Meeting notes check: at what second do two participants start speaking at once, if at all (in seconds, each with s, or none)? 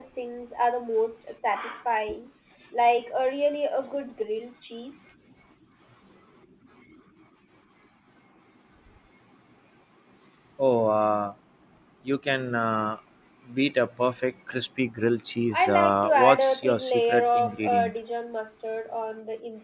15.5 s